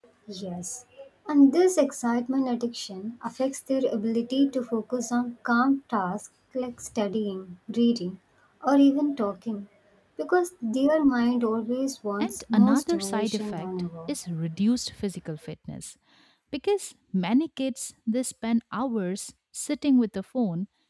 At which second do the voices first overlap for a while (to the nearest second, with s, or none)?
12 s